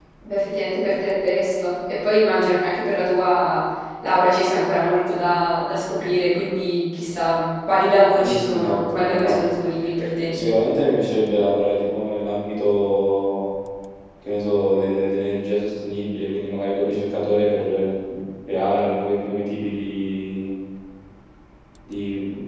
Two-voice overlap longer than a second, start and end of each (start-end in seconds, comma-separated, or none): 8.2-9.5